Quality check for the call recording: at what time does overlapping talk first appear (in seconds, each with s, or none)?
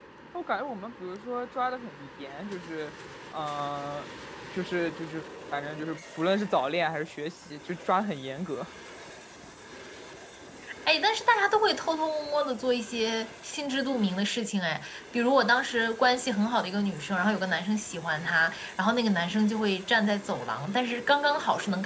none